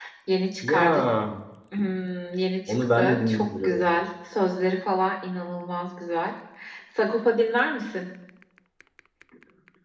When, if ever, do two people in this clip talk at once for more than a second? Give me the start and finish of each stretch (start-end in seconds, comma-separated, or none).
2.7-3.9